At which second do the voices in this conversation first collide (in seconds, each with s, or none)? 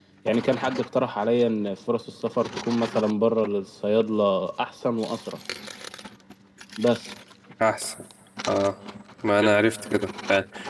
none